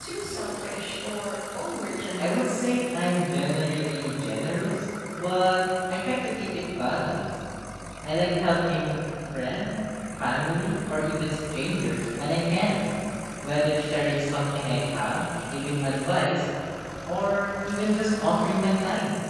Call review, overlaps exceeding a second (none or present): none